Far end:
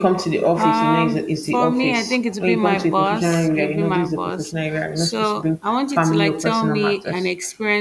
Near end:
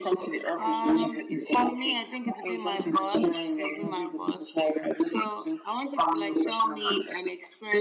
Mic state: echo only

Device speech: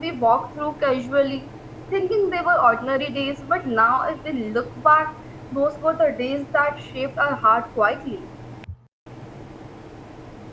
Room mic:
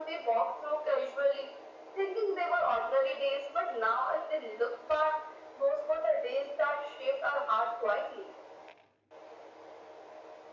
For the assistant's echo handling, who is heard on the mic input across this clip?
echo only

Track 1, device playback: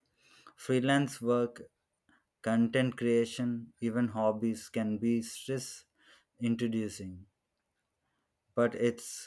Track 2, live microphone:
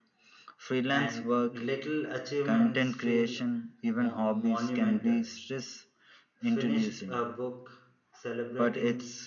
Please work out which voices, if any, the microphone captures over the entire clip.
both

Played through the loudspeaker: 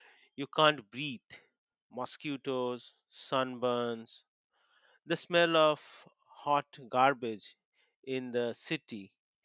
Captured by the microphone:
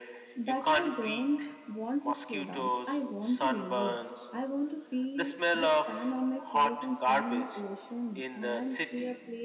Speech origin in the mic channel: both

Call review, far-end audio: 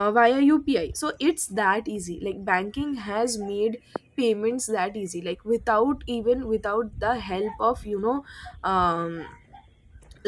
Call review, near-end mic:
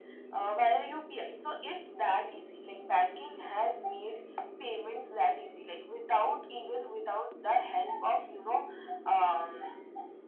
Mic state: echo only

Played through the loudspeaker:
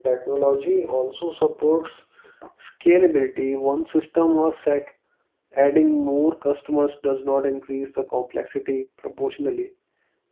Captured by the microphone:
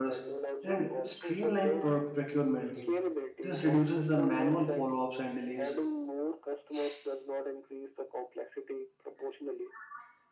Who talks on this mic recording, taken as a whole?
both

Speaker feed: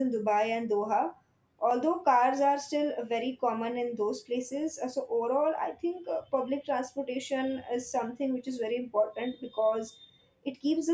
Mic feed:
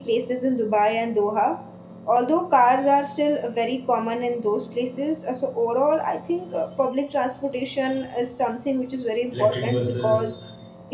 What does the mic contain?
both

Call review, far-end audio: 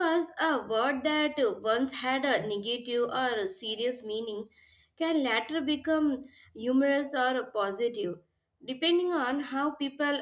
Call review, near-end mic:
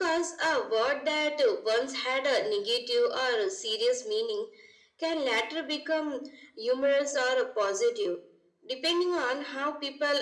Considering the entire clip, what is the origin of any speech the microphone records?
echo only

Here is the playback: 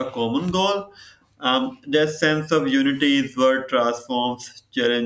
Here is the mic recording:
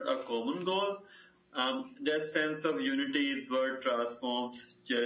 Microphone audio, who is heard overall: echo only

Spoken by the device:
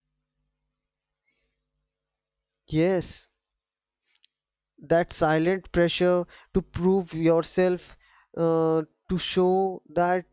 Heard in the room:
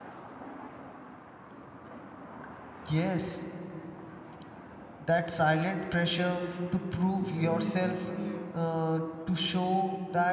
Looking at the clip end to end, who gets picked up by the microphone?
both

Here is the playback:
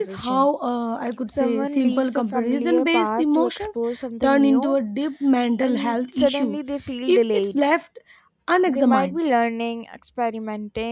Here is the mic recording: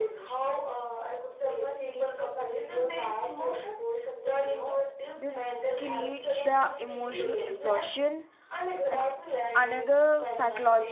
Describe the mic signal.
both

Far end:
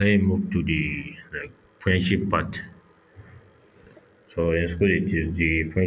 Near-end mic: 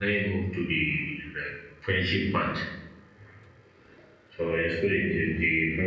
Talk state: echo only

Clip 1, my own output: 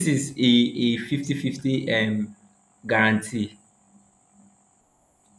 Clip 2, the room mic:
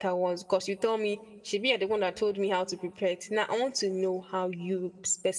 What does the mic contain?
user only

